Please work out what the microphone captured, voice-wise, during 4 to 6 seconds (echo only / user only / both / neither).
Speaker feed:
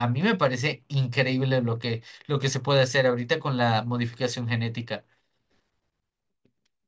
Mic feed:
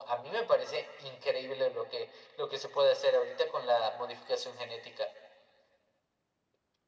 echo only